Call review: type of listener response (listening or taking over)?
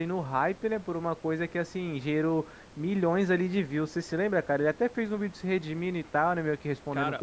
taking over